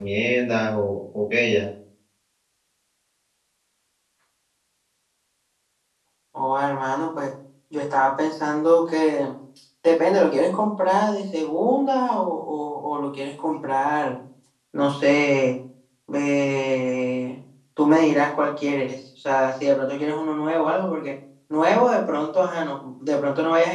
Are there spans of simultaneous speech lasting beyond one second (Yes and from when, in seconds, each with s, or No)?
No